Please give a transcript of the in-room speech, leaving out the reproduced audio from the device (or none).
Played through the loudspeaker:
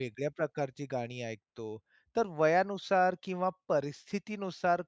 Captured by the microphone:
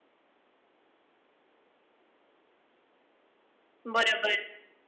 बरोबर.